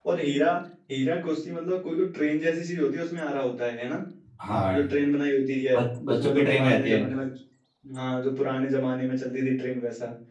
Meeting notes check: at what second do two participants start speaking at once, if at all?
5.8 s

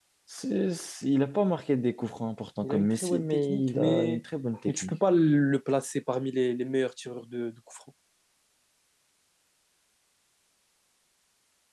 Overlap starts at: 2.6 s

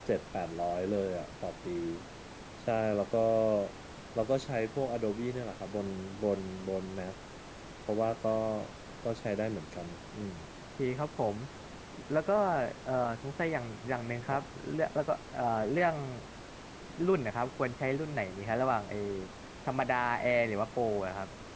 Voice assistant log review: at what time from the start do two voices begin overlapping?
none

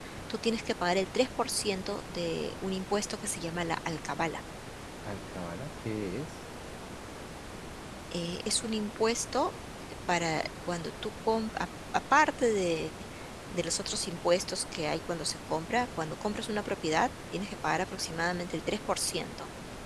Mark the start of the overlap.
none

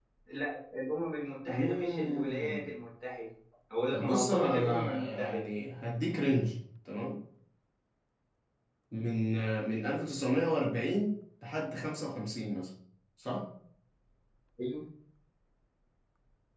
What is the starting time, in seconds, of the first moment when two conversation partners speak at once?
1.5 s

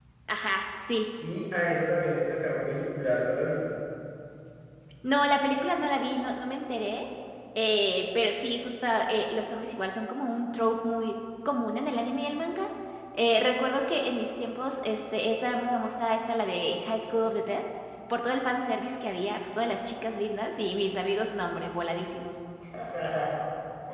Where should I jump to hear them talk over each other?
none

